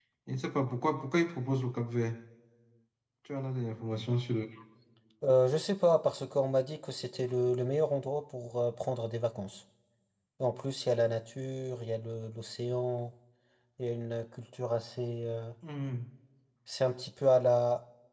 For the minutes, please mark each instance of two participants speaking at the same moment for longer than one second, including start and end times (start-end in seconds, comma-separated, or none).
none